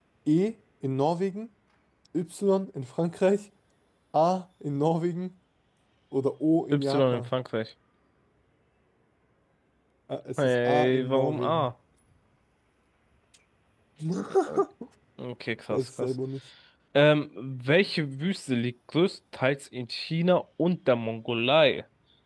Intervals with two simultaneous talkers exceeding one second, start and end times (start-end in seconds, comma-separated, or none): 10.4-11.7